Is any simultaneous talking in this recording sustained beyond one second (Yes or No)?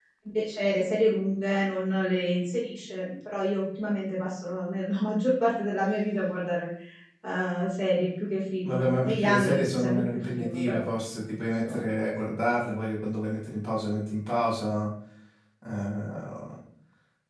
Yes